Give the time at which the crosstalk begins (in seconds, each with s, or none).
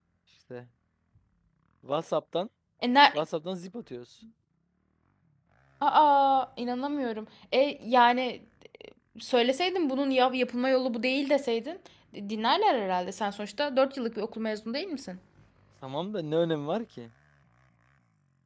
none